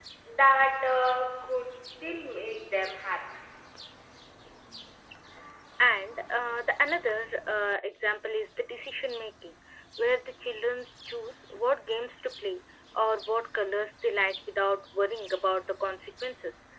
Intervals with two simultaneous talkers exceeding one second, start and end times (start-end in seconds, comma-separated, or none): none